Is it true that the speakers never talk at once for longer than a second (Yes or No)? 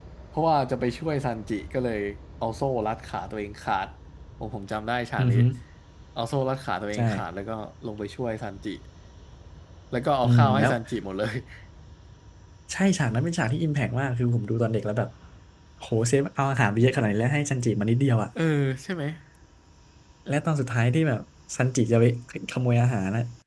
Yes